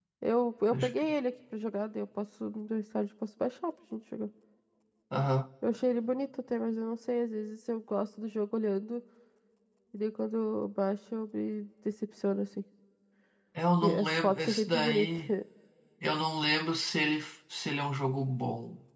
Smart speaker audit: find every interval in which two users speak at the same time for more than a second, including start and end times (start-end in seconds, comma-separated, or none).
13.8-15.1